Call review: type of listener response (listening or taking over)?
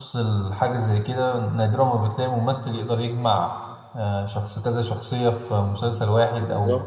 listening